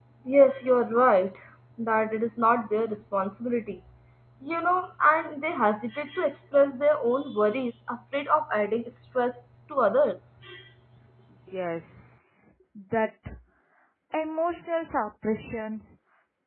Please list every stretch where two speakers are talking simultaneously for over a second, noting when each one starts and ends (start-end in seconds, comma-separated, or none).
none